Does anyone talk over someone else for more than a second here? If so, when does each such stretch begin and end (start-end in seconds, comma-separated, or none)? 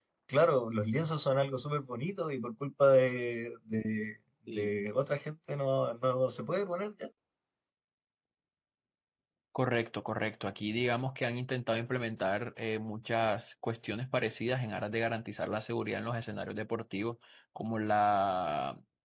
none